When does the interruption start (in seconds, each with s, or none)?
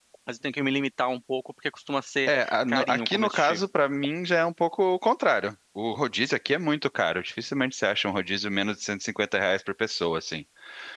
2.3 s